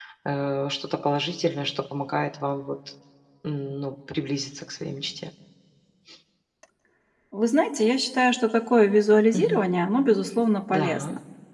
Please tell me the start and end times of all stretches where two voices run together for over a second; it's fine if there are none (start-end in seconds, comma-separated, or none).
none